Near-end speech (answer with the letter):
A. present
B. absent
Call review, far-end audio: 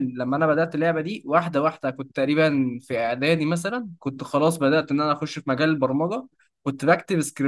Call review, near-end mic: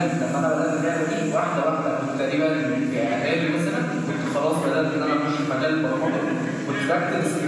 A